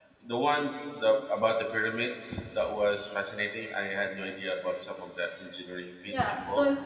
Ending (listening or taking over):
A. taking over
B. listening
A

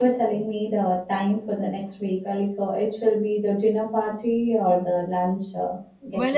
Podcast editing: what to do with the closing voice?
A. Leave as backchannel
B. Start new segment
B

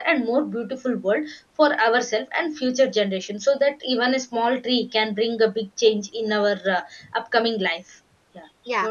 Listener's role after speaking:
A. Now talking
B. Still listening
A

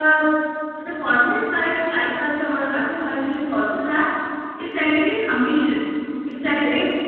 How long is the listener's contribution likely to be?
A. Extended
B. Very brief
B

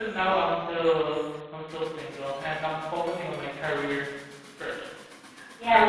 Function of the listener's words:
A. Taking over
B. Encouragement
A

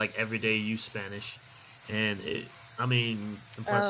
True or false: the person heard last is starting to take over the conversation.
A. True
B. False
B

